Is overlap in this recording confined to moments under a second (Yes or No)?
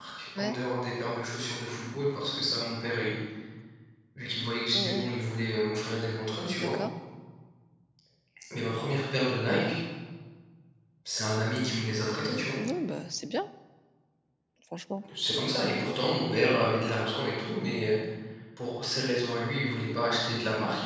Yes